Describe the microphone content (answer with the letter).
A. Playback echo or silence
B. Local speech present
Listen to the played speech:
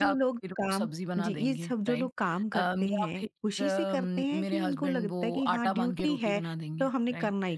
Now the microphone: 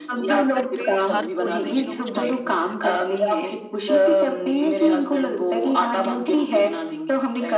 B